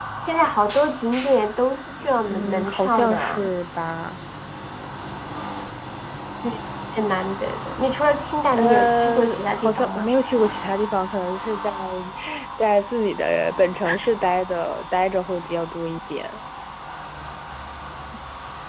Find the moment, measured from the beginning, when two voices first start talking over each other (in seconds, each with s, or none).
2.3 s